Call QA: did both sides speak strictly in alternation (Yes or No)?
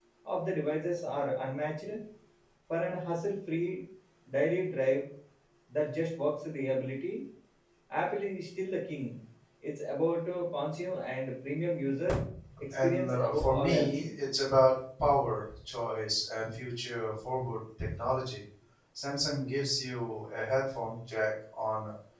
No